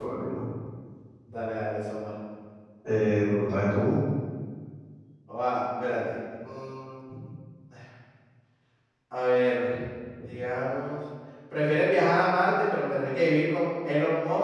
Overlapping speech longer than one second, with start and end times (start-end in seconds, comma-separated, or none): none